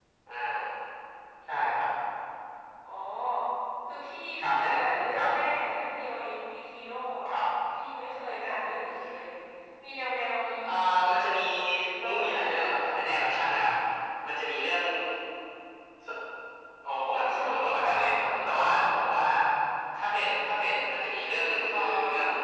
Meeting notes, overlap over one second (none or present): present